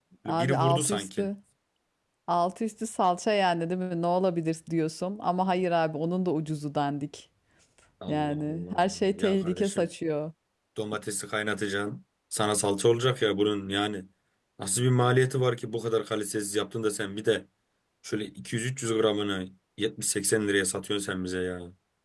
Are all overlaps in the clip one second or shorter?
No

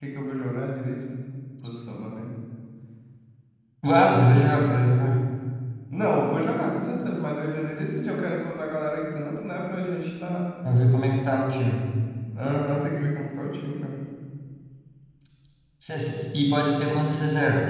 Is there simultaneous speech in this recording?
No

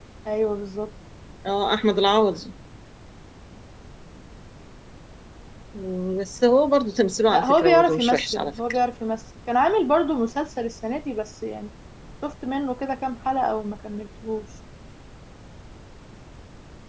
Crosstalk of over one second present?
Yes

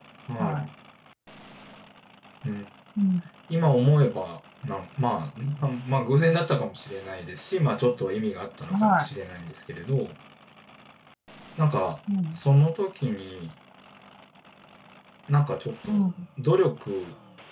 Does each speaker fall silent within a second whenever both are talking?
Yes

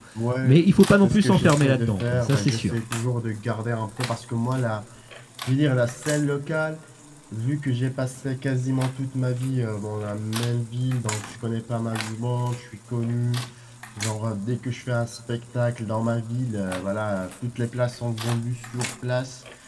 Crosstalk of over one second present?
Yes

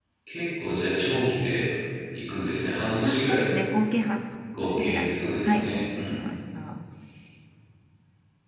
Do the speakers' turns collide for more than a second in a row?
Yes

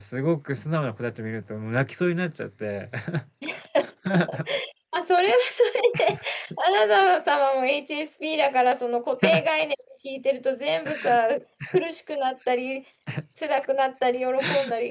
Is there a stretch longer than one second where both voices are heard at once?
No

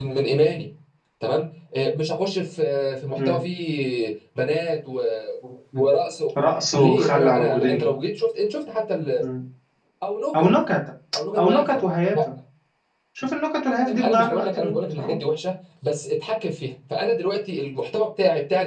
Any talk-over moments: Yes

